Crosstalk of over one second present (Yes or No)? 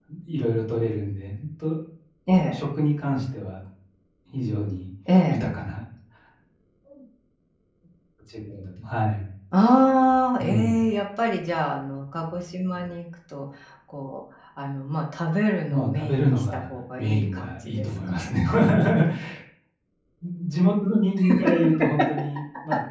Yes